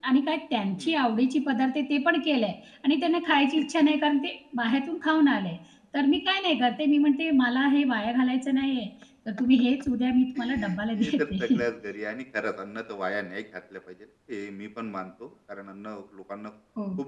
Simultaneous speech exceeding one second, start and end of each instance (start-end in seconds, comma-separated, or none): 10.3-11.6